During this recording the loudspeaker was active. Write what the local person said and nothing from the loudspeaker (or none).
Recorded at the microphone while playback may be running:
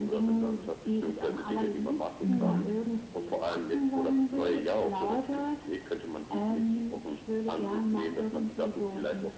Mhm.